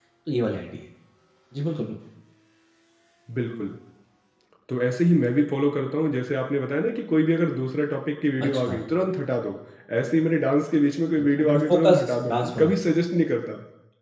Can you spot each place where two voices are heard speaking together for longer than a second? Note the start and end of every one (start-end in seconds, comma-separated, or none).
11.4-13.0